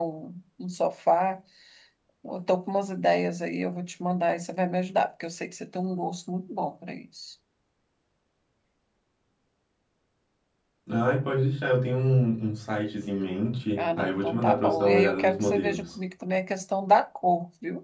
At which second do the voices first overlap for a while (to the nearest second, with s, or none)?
14 s